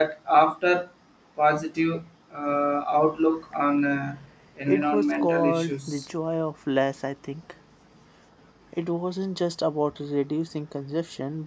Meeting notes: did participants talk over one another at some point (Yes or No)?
Yes